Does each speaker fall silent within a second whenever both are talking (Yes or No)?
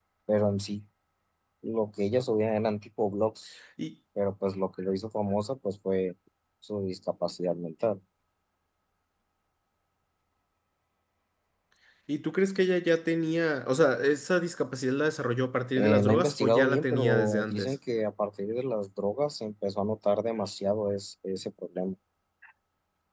No